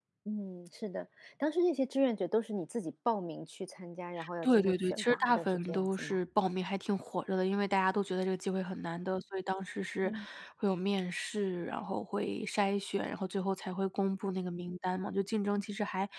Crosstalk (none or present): present